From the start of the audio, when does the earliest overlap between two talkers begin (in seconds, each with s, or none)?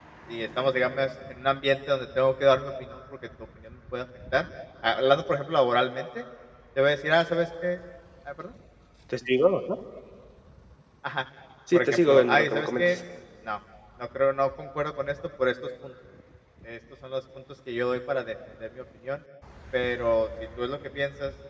11.7 s